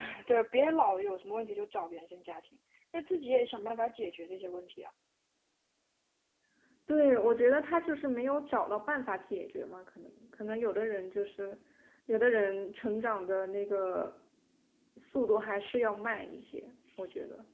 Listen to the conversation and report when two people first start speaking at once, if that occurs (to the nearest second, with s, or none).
none